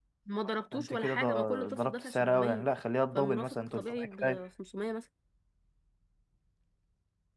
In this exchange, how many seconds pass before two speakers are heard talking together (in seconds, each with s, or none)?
0.7 s